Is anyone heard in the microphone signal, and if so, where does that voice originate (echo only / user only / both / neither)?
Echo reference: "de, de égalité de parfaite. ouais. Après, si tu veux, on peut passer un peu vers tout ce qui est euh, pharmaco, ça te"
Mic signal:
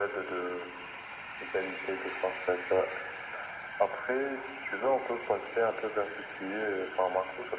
echo only